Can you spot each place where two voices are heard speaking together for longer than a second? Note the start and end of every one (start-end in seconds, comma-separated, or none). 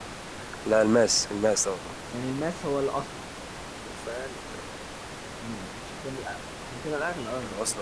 none